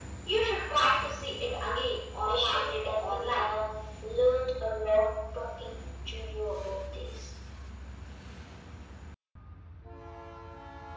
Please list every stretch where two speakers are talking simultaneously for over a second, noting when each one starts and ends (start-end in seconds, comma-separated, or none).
2.2-3.5